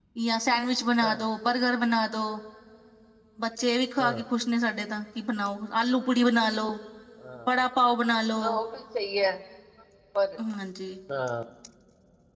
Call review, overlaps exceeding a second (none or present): none